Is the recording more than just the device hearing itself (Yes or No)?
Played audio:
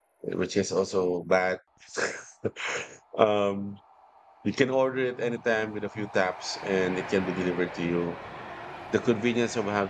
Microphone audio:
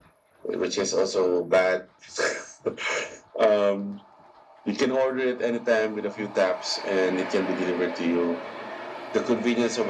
No